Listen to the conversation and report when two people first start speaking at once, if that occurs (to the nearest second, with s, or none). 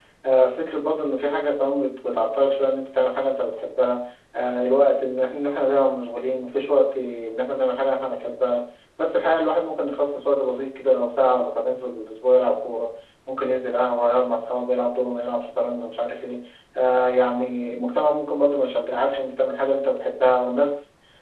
none